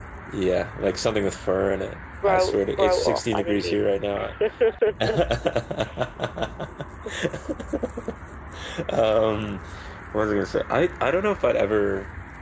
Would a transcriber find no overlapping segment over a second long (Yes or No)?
No